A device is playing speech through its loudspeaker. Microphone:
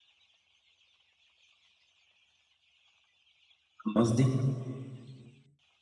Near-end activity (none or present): present